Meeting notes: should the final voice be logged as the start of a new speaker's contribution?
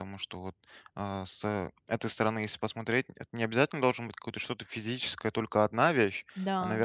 No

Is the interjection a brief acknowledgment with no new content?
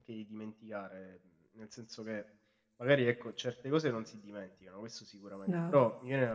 Yes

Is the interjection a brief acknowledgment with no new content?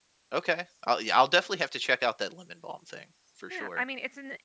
No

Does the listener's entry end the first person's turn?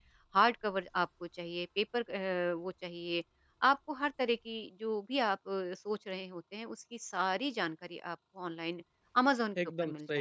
Yes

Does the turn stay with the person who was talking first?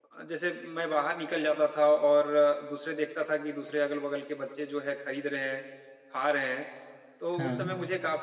Yes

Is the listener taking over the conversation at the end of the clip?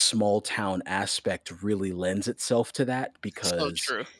No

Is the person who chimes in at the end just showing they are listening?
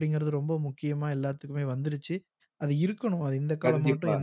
Yes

